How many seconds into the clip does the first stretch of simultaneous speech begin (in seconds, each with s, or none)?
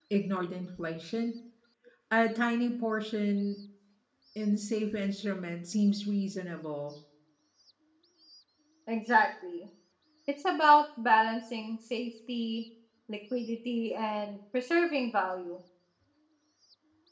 none